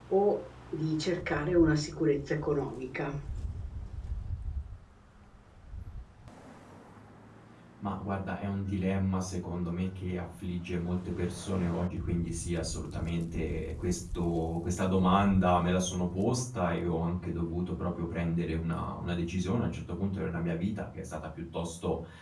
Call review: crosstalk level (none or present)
none